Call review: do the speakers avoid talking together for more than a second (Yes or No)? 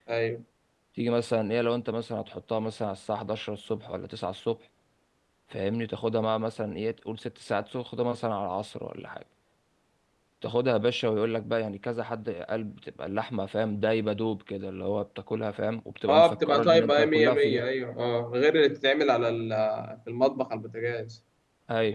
No